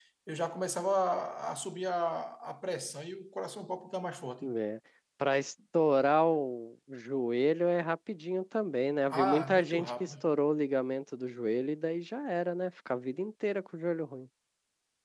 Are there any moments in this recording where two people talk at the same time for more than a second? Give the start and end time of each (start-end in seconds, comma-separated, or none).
9.1-10.3